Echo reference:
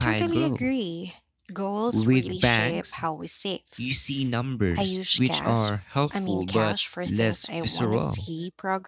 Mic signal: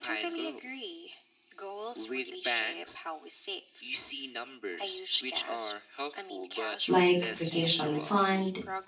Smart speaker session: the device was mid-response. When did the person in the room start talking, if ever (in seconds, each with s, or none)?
6.8 s